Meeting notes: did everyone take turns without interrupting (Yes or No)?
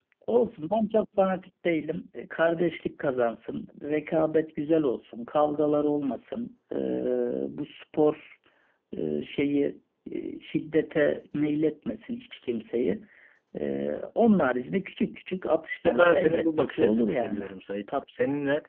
No